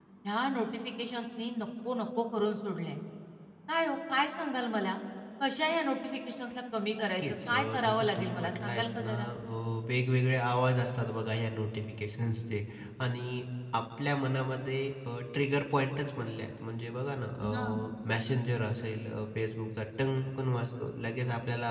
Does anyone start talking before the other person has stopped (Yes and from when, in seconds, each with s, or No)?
Yes, from 7.2 s